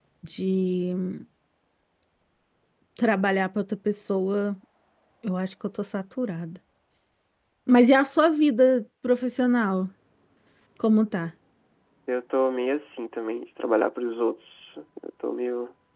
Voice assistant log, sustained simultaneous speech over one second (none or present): none